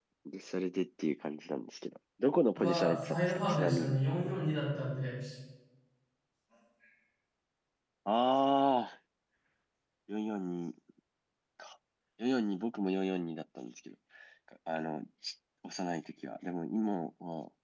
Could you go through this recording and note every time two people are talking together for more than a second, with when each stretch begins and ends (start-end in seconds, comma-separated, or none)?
2.6-4.0